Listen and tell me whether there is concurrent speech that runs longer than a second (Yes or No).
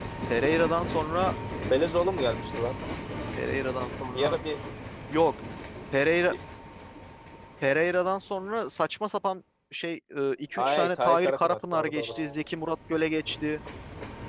Yes